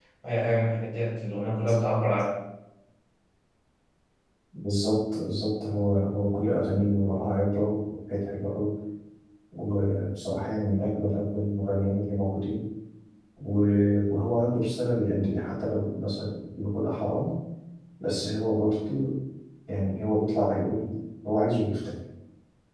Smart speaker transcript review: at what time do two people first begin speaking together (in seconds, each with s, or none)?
none